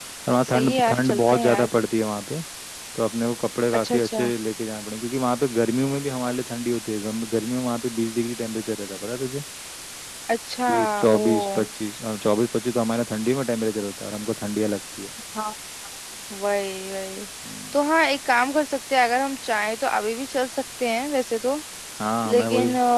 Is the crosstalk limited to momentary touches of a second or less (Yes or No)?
No